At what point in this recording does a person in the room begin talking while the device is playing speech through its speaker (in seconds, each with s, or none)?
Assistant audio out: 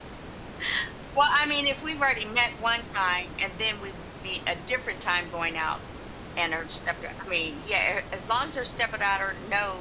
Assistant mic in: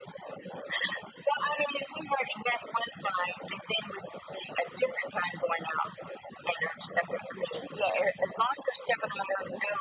none